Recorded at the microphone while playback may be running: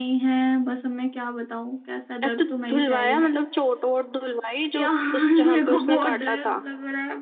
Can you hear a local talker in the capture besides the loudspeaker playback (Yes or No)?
Yes